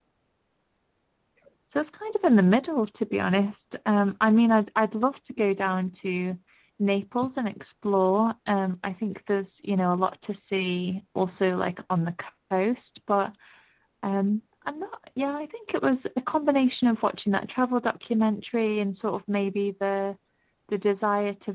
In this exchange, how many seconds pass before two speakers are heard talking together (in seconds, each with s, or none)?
none